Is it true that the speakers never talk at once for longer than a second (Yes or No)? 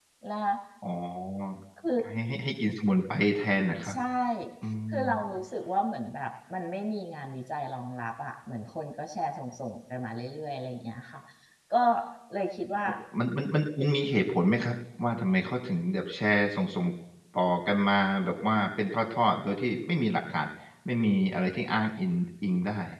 Yes